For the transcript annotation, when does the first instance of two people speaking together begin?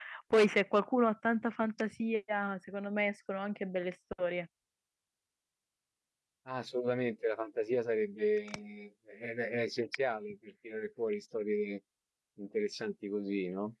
none

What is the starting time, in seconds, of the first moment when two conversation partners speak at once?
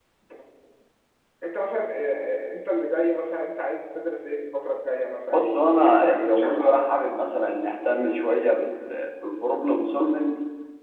5 s

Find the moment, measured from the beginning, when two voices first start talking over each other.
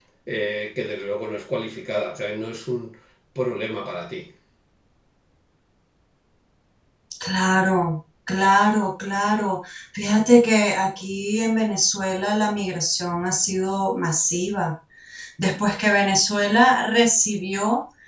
none

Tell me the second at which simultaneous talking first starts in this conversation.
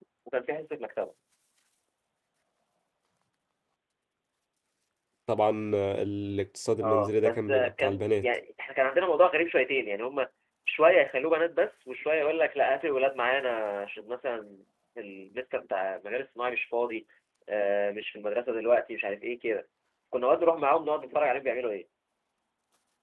7 s

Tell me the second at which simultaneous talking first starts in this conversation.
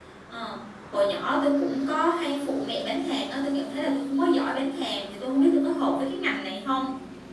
none

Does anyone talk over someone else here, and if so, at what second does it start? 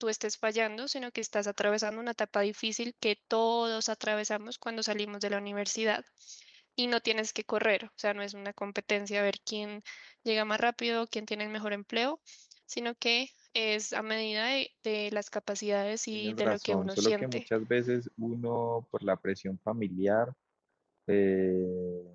16 s

